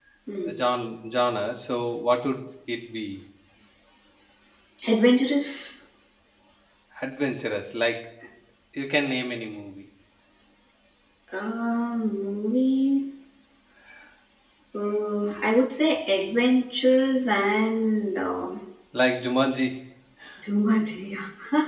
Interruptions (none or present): none